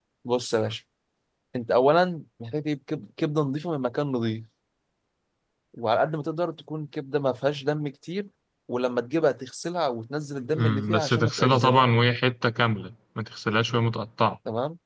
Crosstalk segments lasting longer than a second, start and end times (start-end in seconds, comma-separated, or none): 10.5-12.0